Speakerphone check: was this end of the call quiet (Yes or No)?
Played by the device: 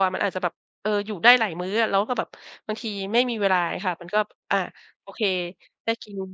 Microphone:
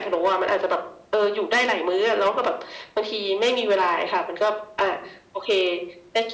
Yes